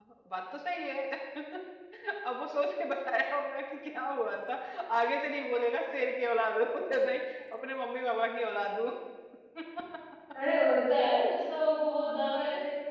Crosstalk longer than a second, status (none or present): none